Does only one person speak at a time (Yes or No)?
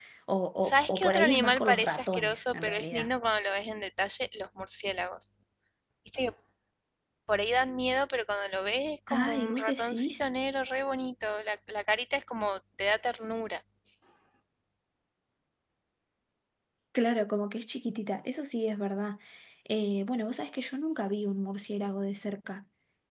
No